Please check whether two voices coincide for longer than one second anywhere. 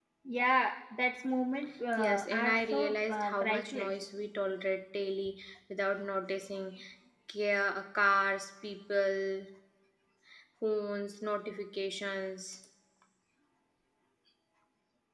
Yes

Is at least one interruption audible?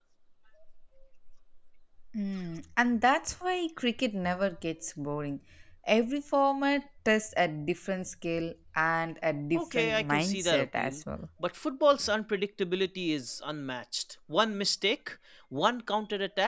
Yes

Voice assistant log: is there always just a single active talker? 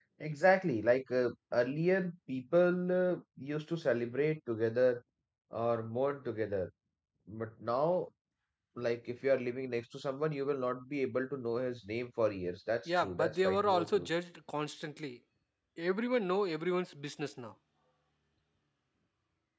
No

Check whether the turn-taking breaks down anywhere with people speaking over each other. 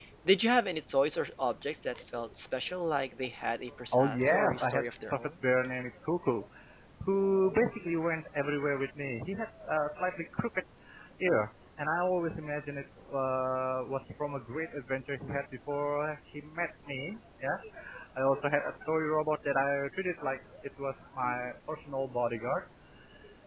Yes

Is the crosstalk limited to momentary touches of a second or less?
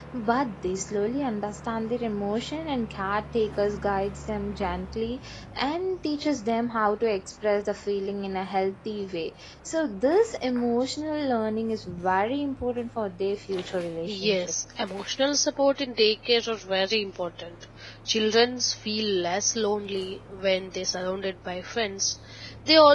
Yes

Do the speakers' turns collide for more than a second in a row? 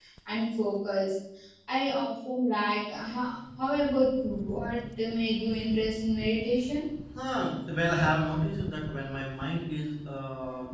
No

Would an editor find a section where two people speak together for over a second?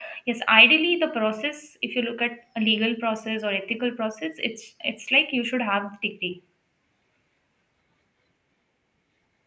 No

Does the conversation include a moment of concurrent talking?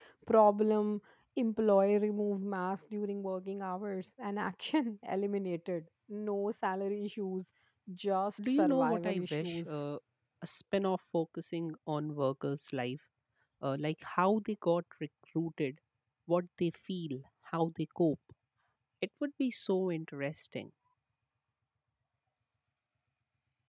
Yes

